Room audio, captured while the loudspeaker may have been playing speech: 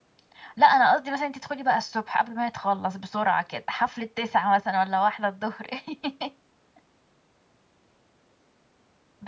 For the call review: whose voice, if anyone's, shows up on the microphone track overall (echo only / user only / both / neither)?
user only